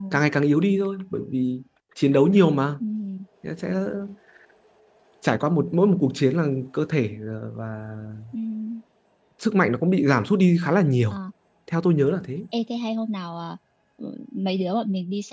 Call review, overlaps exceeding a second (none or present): none